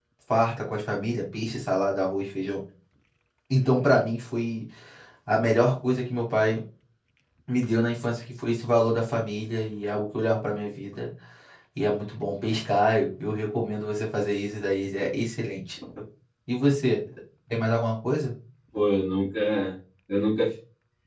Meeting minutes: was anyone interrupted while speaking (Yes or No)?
No